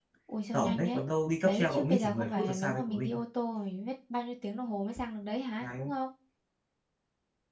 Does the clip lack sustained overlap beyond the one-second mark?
No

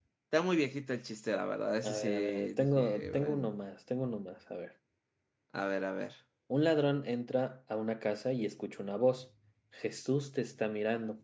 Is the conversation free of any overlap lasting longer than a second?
No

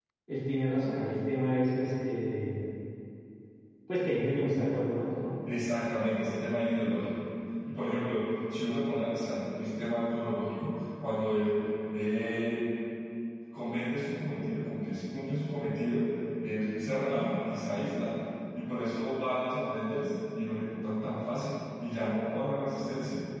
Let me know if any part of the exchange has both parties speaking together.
No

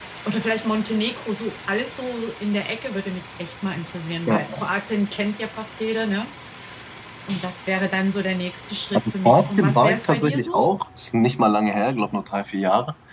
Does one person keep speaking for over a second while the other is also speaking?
Yes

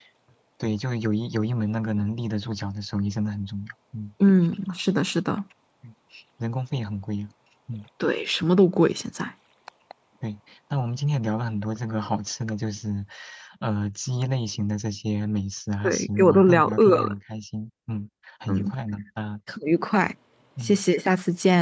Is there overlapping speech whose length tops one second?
Yes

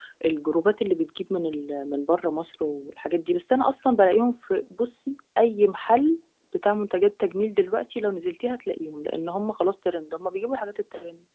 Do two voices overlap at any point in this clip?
No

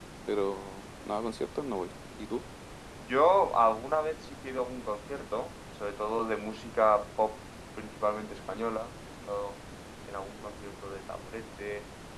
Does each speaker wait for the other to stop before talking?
Yes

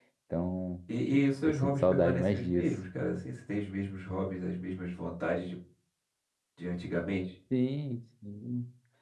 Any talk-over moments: Yes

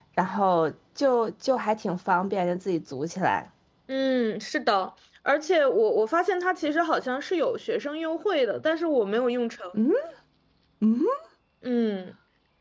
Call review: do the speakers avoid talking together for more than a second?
Yes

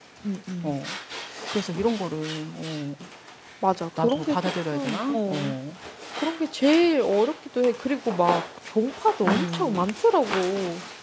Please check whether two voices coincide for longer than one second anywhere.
Yes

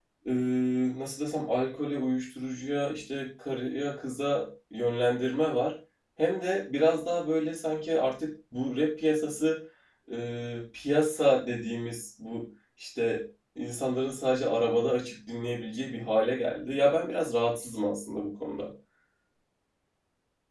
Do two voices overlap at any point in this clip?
No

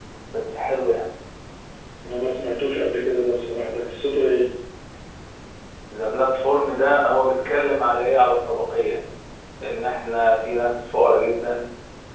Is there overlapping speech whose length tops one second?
No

